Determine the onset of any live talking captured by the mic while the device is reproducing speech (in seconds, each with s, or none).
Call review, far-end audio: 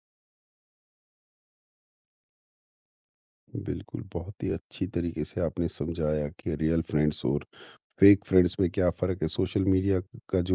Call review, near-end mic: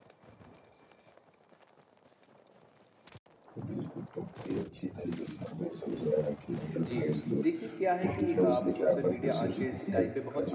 6.8 s